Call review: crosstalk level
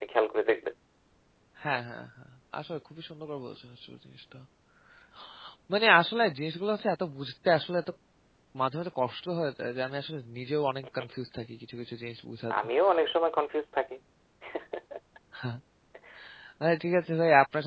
none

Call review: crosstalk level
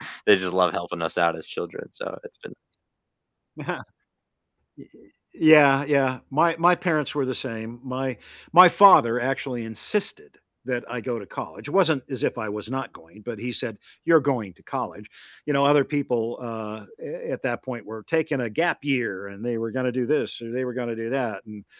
none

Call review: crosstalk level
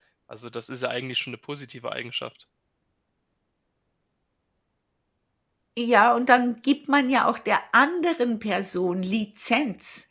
none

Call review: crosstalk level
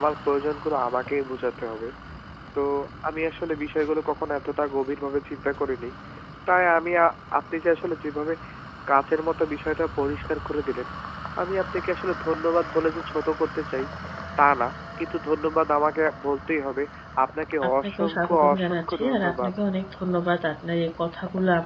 present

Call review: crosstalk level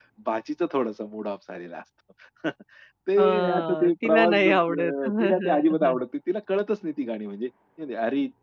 present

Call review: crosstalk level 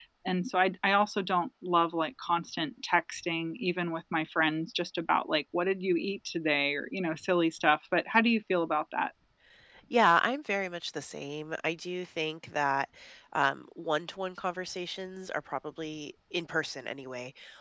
none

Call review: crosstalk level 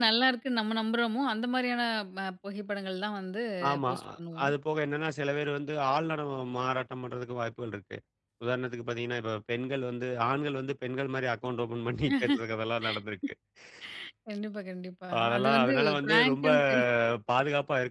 present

